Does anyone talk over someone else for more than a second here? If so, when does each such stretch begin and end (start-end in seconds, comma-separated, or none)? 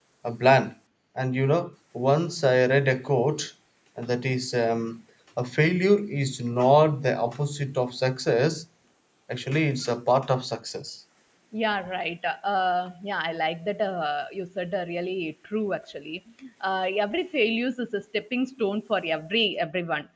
none